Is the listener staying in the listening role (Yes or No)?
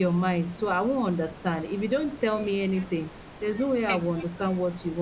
Yes